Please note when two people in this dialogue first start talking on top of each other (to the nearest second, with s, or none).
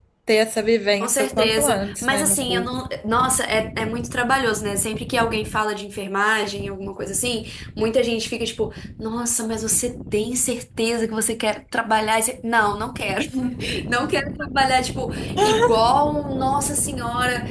1 s